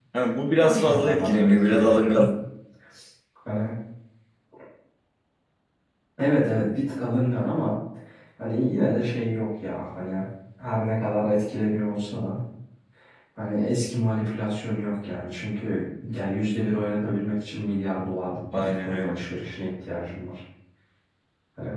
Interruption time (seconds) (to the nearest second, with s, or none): 1 s